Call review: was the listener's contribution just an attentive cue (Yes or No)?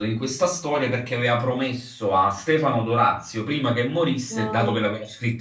Yes